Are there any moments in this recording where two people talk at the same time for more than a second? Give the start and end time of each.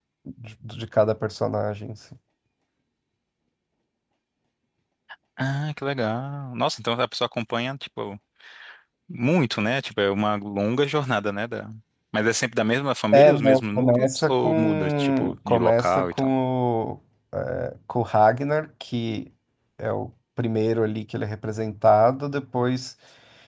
13.1-16.3

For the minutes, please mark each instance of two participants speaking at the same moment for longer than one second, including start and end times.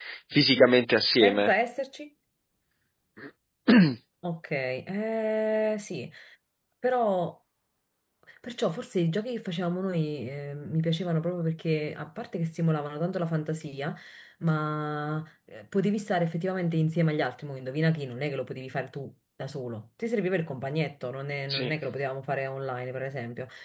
none

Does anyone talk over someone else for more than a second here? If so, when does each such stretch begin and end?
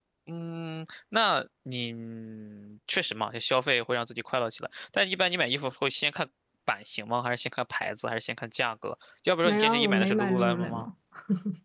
9.4-10.9

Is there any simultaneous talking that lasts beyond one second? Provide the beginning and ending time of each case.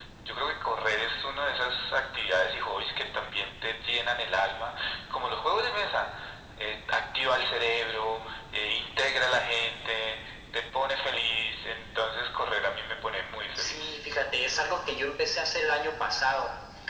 none

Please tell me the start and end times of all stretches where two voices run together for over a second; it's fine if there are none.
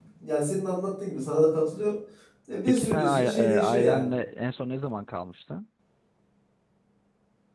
2.7-4.1

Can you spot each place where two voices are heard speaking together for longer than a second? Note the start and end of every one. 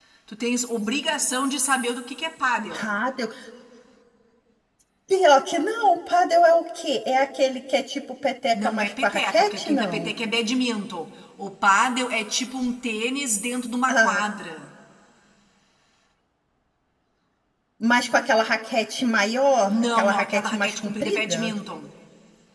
8.5-10.1, 19.6-21.5

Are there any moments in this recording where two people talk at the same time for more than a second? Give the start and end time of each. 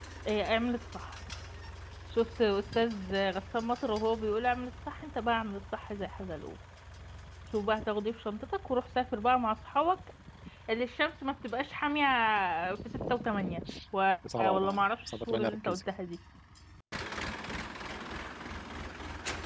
14.4-15.8

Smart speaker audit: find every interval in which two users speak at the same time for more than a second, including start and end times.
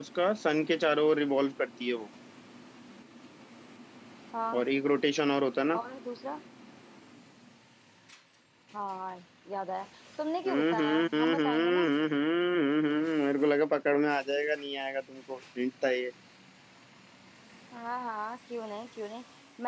10.5-11.8

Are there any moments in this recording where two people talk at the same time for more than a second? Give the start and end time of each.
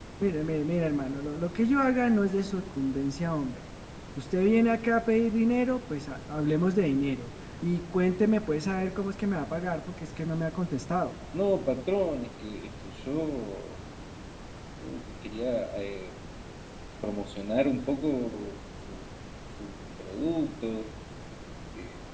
none

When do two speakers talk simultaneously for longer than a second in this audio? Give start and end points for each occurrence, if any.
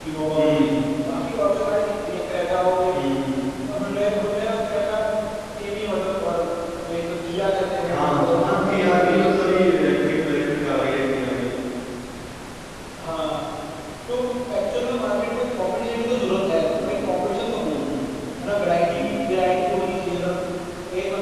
7.9-9.3

